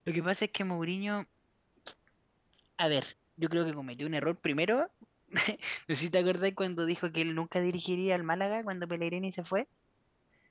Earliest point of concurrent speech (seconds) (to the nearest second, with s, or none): none